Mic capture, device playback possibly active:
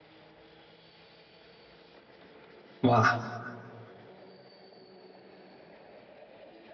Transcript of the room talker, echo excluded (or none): 哇，